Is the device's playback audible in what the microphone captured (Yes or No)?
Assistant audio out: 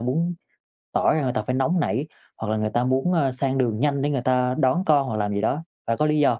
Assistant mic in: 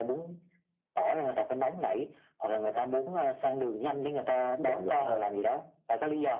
Yes